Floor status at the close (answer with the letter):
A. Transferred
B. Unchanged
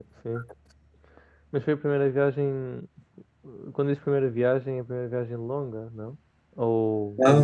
A